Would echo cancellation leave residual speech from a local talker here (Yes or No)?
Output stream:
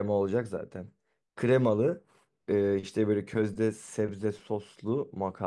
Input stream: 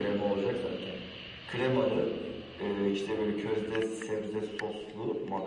No